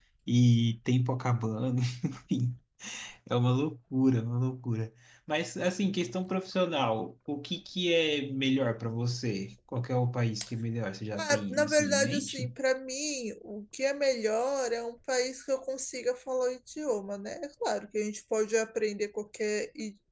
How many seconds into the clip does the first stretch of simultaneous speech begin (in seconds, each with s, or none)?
11.2 s